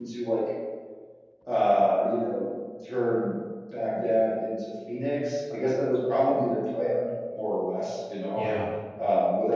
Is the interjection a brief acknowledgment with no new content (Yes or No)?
Yes